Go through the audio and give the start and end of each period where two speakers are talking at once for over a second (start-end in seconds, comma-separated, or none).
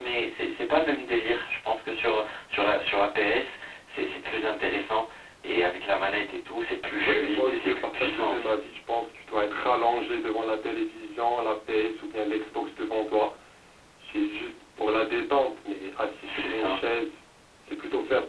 7.0-8.5